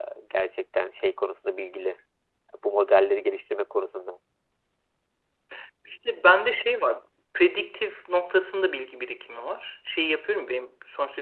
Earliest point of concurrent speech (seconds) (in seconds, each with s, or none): none